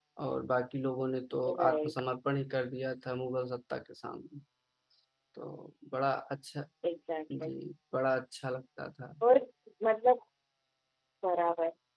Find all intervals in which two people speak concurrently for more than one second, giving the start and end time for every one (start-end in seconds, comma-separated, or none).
none